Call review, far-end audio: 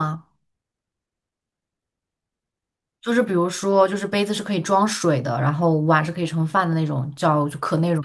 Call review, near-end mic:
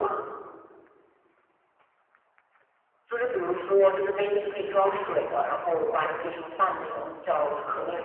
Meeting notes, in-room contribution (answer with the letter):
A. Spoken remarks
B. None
A